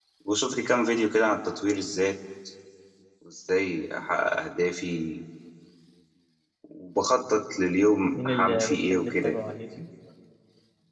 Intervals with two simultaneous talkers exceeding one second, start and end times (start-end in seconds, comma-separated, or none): 8.1-9.4